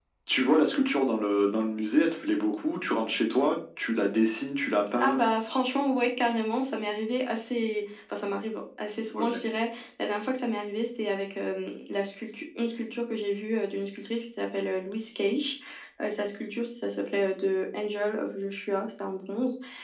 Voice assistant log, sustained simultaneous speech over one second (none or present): none